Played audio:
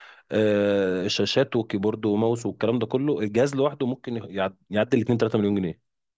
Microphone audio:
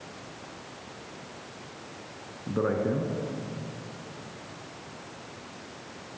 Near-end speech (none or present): present